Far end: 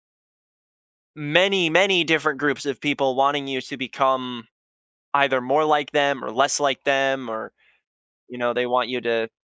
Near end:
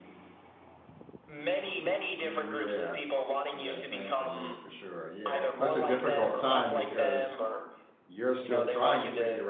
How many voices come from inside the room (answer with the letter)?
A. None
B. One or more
B